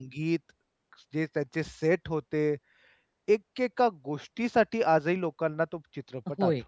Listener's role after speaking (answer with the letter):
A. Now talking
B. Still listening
A